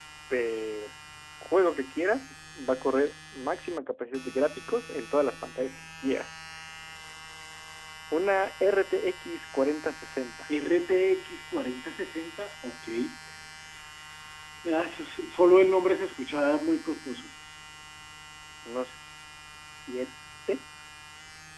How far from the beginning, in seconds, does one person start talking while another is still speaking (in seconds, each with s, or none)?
none